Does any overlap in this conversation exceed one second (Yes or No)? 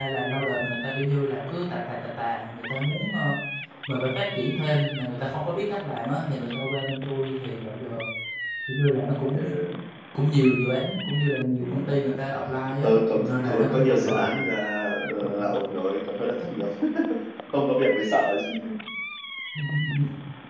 Yes